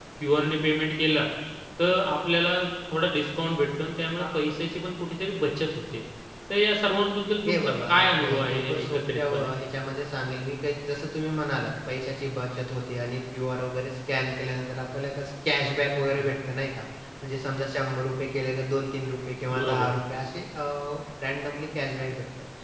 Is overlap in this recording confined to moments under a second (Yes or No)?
No